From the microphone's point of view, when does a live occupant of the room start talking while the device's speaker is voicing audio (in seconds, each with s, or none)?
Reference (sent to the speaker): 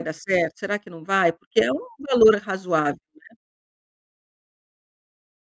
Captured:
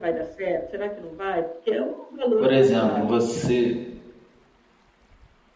2.3 s